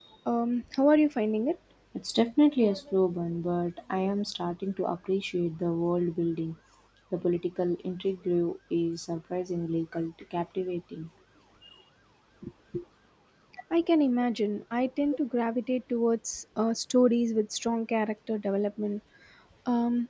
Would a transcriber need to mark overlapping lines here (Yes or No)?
No